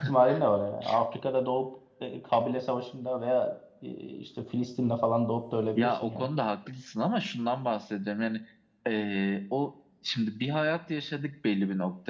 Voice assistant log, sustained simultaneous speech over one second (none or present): none